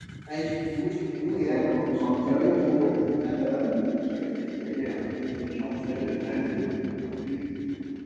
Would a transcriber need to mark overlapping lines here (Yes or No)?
Yes